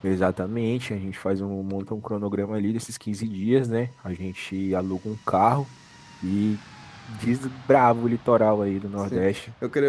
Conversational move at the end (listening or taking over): taking over